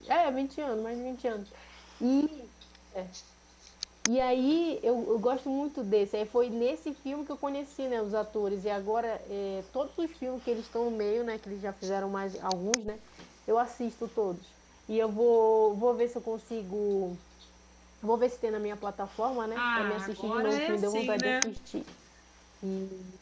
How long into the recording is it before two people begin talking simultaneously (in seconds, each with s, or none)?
19.5 s